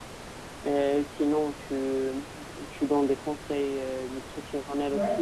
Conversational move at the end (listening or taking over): taking over